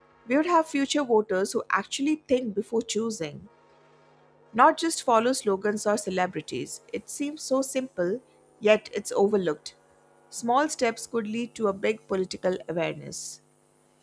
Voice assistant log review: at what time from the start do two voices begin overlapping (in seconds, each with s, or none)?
none